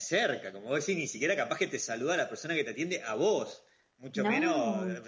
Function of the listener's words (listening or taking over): listening